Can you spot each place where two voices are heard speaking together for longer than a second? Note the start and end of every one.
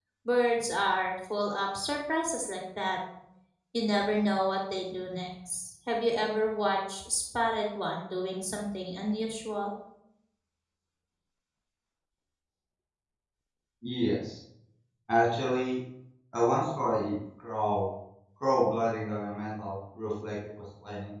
none

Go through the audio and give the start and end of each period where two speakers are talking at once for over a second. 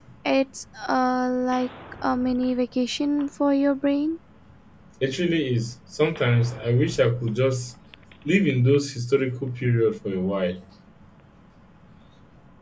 none

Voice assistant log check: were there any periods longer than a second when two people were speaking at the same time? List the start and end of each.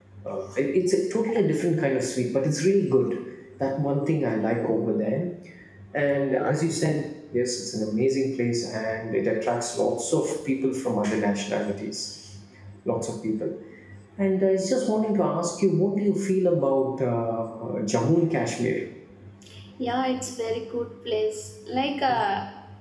none

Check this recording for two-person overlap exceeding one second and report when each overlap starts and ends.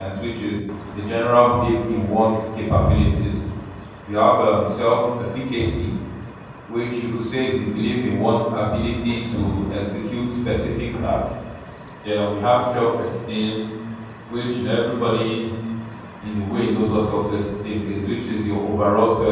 none

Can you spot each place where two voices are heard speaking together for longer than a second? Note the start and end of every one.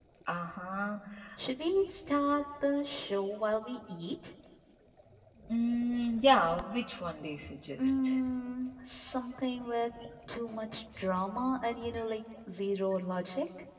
none

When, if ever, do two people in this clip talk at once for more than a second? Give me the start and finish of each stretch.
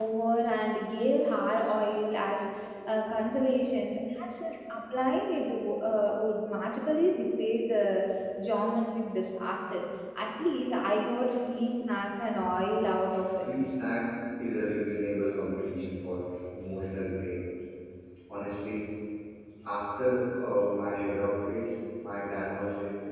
none

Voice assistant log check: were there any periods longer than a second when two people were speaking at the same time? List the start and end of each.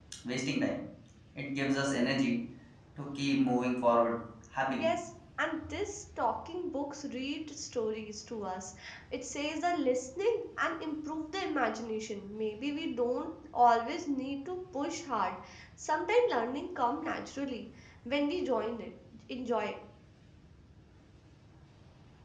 none

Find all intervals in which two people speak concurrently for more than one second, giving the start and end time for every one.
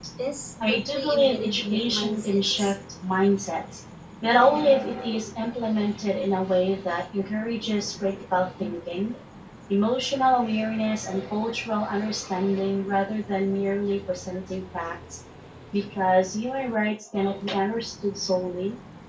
0.6-2.7

